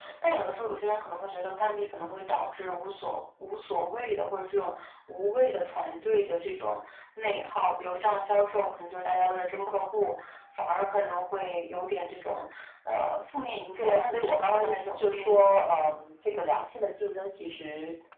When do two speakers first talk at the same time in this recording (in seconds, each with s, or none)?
13.8 s